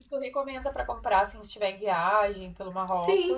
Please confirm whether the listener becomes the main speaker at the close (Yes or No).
Yes